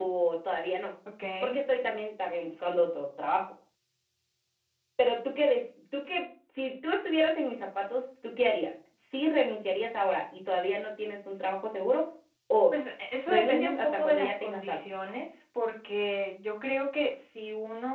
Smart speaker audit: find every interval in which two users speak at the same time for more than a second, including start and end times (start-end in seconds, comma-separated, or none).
13.3-14.8